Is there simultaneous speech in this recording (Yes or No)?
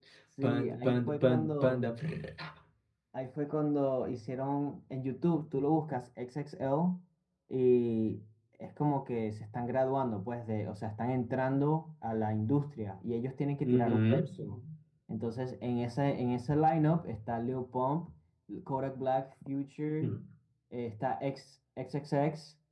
Yes